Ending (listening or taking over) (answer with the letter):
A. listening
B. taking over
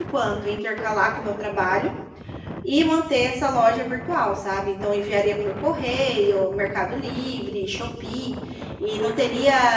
A